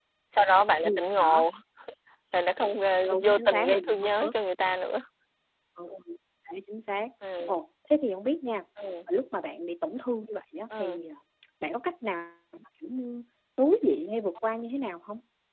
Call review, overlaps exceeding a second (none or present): present